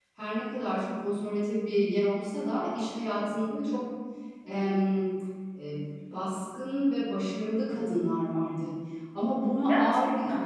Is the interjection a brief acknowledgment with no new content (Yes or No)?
Yes